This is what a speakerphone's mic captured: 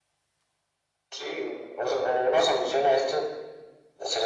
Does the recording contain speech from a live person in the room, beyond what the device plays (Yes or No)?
No